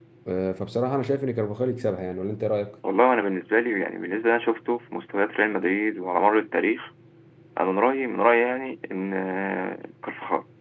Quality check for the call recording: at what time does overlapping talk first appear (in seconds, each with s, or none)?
none